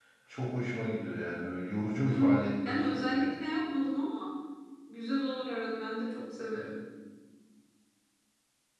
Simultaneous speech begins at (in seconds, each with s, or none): 2.0 s